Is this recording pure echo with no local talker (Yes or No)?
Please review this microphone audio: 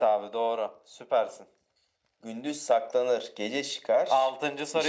Yes